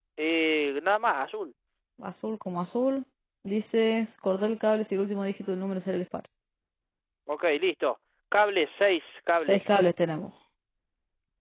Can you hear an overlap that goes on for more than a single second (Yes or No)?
No